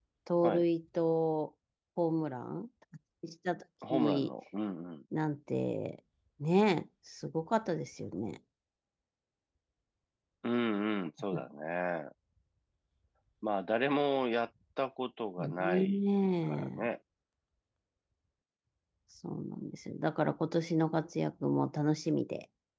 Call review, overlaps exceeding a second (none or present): present